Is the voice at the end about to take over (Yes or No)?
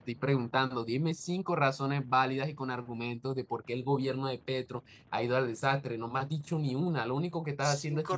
Yes